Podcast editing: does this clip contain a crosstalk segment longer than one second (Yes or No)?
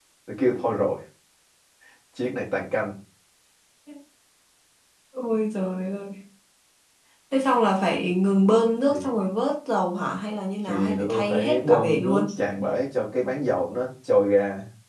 Yes